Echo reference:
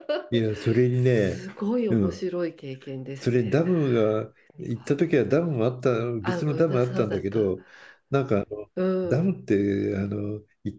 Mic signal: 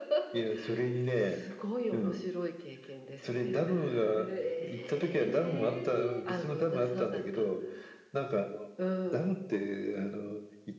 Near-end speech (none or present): present